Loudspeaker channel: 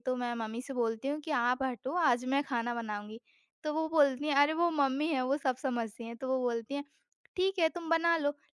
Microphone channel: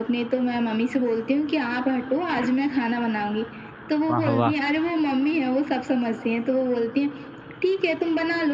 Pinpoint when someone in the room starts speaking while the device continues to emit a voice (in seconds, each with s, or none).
4.1 s